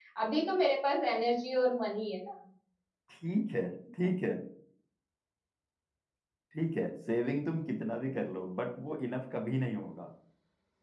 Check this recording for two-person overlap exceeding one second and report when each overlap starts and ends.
none

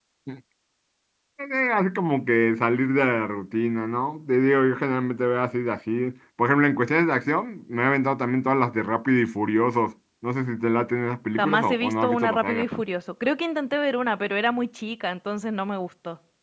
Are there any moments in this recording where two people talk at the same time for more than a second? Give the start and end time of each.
11.3-12.7

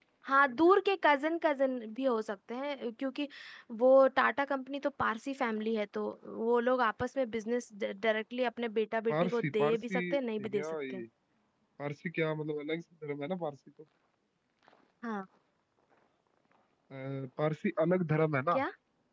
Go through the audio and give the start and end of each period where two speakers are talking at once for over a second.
9.1-11.0

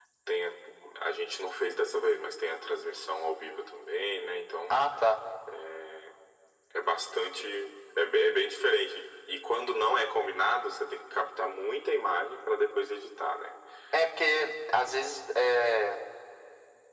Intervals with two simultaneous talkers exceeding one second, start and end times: none

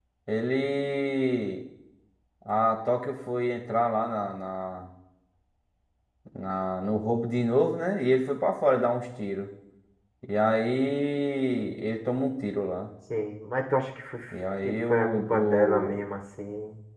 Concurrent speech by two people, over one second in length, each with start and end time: 14.6-16.1

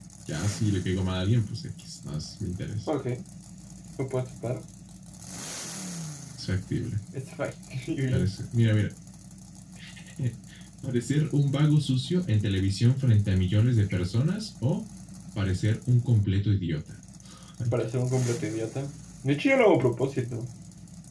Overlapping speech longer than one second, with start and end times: none

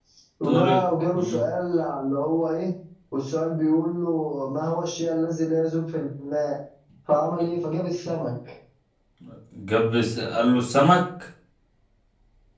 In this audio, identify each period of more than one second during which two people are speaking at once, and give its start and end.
none

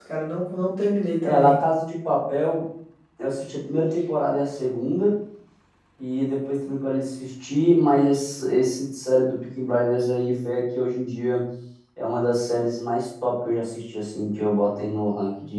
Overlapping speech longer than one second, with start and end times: none

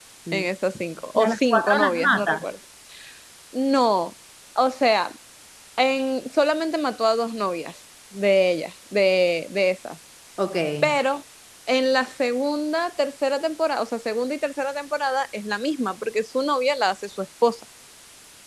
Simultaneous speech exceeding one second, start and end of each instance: 1.1-2.5

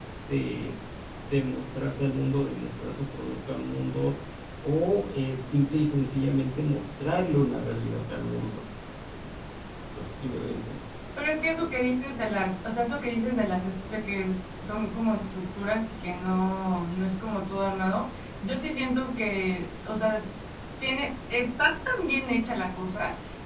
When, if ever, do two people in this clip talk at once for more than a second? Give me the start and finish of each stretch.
none

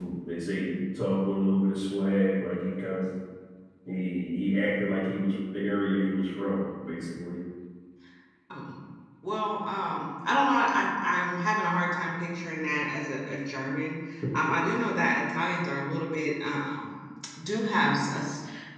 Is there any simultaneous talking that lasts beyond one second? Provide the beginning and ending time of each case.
none

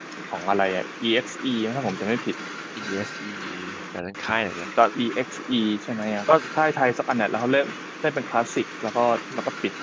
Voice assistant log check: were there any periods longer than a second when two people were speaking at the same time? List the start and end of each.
none

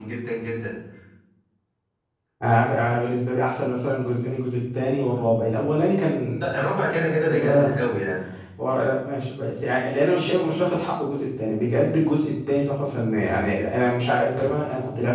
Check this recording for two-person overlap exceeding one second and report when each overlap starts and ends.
6.4-7.7

